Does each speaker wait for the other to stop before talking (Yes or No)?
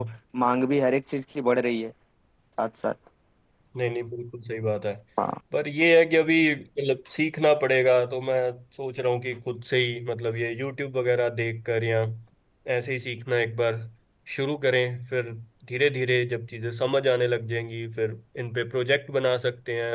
Yes